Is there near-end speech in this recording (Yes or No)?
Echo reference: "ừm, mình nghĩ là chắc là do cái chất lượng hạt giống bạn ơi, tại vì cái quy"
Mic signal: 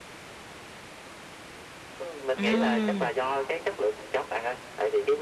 Yes